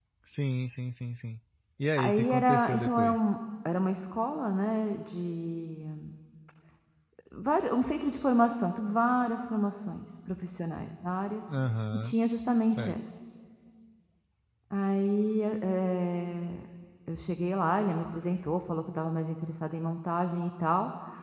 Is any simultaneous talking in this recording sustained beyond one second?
Yes, from 2.0 s

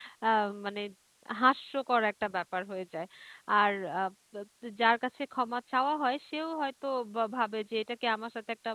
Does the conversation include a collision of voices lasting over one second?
No

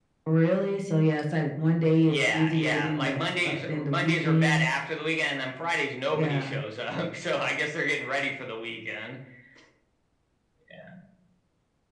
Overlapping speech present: Yes, from 2.1 s

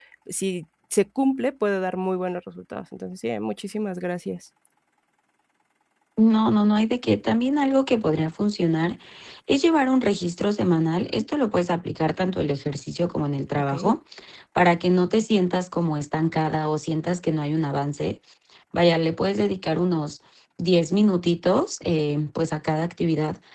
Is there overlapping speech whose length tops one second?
No

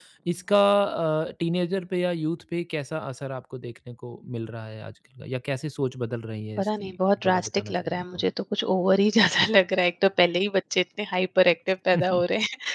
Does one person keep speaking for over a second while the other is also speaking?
Yes, from 6.6 s

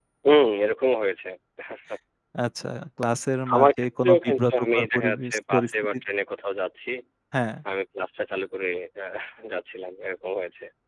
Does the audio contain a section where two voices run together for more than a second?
Yes, from 3.5 s

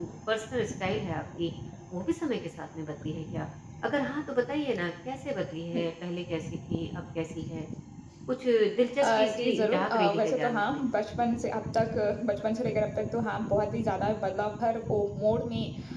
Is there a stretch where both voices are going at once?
Yes, from 9.0 s

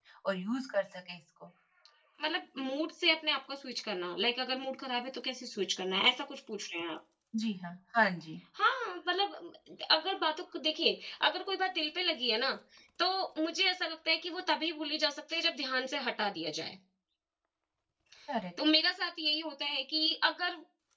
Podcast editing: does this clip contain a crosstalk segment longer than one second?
No

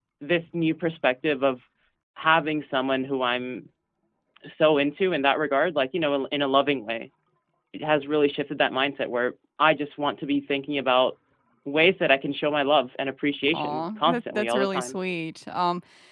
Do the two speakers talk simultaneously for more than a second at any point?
Yes, from 13.5 s

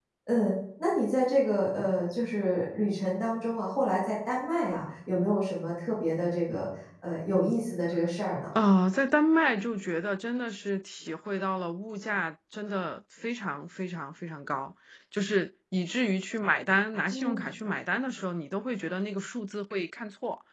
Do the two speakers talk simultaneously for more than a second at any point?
No

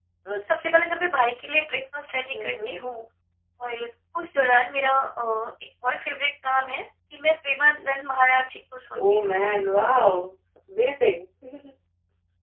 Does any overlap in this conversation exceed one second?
No

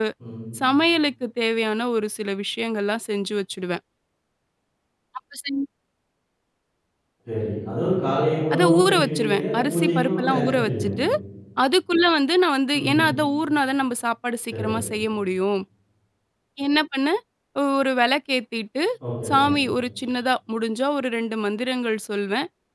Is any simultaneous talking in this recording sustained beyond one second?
Yes, from 8.5 s

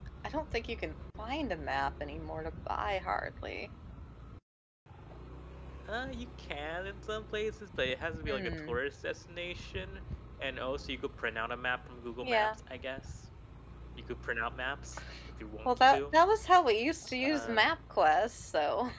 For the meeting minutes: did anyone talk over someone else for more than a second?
No

